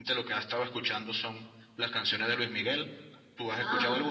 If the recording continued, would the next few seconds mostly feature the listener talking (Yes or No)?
Yes